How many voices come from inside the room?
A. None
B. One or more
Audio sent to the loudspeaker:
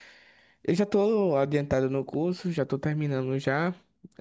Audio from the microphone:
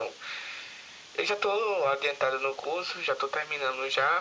A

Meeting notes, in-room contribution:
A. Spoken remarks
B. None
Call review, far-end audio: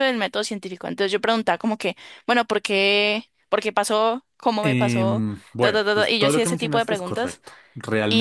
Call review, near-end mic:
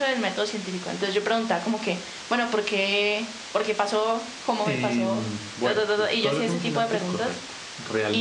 B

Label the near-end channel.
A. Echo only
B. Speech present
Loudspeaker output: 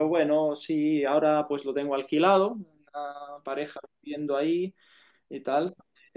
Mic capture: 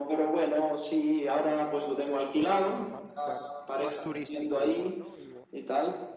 B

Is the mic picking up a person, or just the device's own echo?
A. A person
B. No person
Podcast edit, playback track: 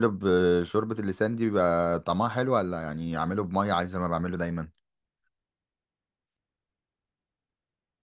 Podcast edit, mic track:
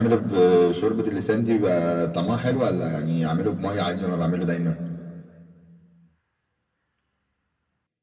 B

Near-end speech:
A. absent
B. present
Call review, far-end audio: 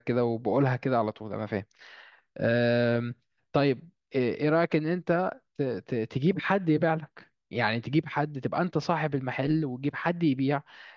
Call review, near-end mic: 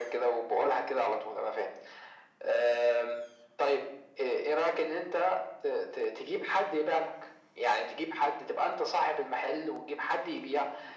A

